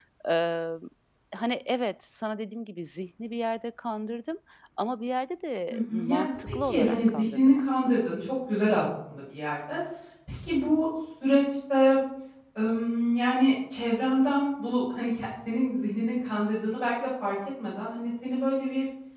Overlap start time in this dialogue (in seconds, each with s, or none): 5.7 s